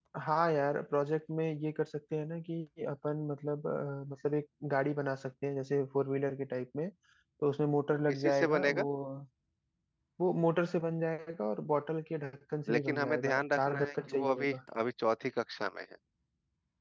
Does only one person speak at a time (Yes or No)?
No